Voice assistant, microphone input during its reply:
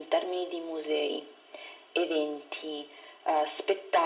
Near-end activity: none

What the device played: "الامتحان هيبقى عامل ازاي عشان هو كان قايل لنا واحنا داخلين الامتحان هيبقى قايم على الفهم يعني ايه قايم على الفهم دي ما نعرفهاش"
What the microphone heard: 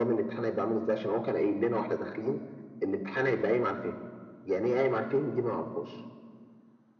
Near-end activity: none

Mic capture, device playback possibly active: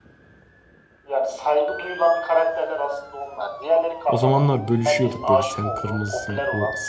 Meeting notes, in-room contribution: present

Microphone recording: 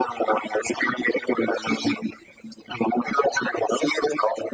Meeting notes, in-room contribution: none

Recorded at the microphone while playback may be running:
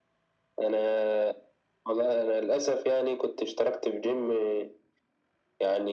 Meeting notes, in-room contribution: none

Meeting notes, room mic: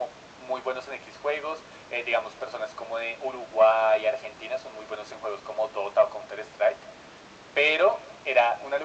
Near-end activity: none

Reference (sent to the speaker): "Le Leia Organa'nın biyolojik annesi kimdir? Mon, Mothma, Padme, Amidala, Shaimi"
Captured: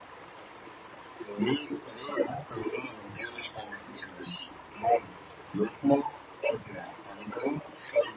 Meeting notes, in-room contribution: none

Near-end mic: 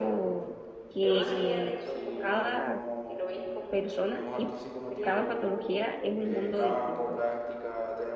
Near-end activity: present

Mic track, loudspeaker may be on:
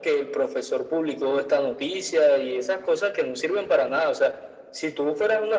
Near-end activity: none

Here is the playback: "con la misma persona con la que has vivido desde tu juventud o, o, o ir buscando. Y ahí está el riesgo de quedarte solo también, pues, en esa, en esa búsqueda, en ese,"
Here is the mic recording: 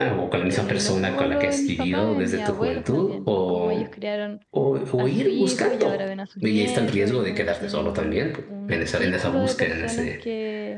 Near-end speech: present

